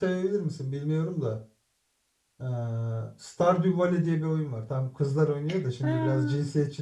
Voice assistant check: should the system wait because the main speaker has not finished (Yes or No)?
Yes